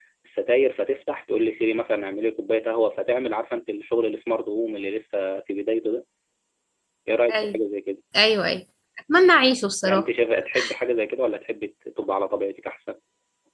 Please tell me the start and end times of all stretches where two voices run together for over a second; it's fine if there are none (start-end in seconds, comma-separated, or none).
none